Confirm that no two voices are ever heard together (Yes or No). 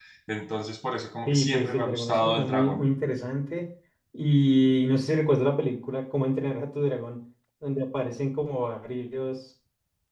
No